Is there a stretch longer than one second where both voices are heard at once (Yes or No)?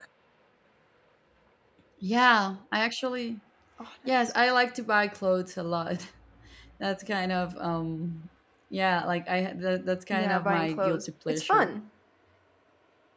Yes